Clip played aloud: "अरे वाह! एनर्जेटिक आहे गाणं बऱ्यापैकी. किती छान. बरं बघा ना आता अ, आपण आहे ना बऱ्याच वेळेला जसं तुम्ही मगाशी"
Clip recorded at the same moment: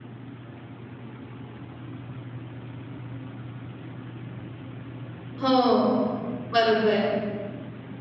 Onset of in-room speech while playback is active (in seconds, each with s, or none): 5.4 s